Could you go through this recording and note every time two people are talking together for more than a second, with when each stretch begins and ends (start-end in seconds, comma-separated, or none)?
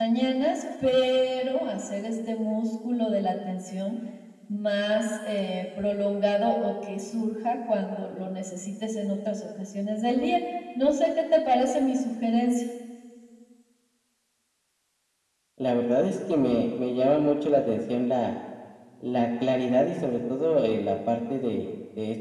none